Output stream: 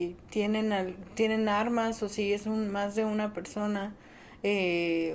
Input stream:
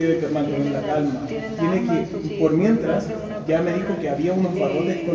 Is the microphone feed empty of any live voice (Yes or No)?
No